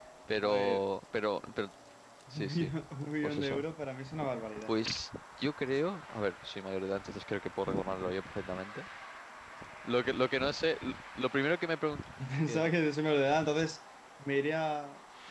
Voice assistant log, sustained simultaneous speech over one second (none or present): none